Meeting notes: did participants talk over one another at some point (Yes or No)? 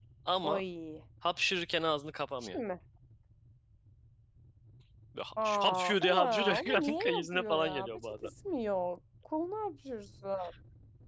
Yes